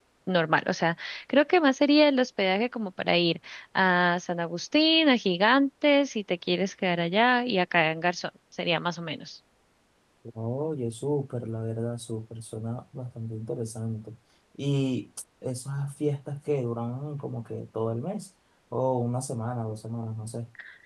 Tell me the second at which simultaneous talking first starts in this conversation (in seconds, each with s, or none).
none